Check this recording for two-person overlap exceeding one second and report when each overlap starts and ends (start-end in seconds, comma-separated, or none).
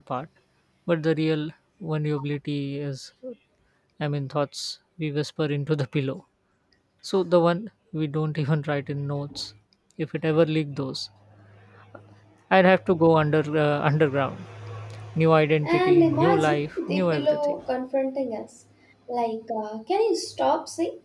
15.7-17.5